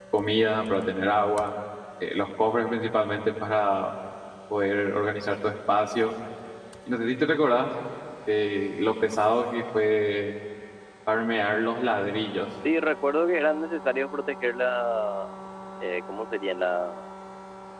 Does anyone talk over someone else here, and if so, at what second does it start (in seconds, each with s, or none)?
none